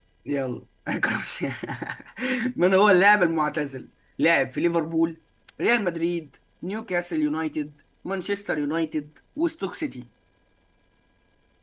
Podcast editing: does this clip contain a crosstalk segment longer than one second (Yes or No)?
No